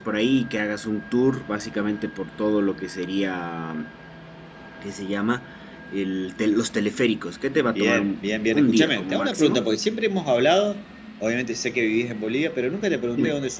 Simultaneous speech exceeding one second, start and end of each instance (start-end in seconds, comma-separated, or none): 7.8-9.6